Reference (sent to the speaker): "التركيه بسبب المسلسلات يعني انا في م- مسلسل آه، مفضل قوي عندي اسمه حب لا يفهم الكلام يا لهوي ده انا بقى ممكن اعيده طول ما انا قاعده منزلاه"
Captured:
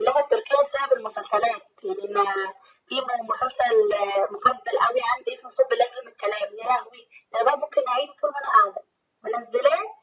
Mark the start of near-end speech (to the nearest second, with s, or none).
none